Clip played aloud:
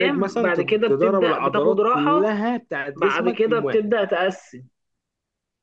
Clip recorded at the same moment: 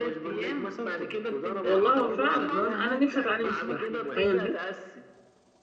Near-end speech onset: 1.6 s

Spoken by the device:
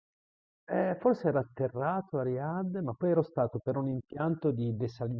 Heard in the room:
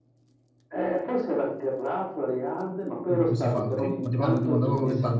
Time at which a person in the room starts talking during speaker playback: 3.0 s

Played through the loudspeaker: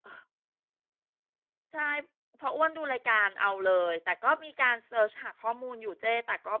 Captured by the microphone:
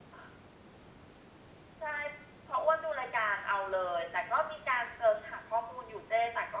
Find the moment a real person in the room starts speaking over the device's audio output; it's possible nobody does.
none

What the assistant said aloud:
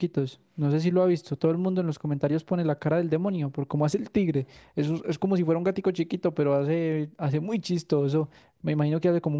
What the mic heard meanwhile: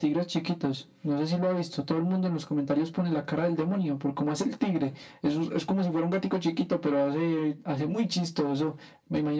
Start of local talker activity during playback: none

